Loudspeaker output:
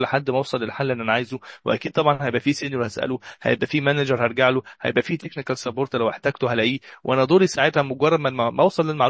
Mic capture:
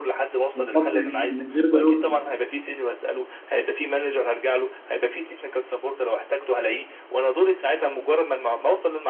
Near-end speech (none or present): present